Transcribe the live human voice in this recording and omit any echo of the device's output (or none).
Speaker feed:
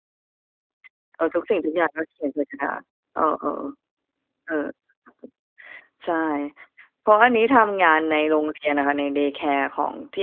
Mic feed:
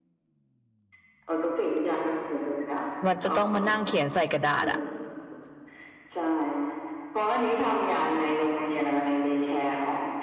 มันจะต้องมานั่งเขียนใส่กระดาษอะ